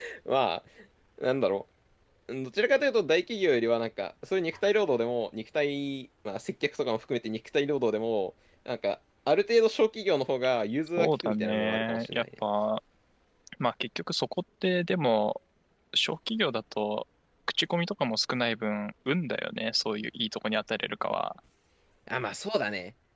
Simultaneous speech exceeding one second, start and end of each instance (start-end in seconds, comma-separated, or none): 11.0-12.2